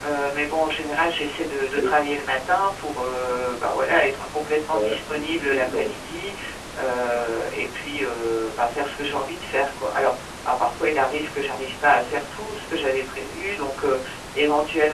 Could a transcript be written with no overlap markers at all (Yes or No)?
No